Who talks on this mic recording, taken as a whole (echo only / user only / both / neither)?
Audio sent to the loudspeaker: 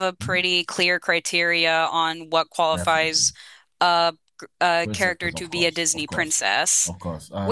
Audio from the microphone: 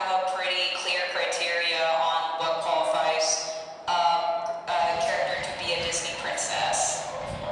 echo only